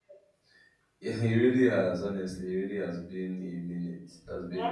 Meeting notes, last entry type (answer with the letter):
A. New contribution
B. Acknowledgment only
A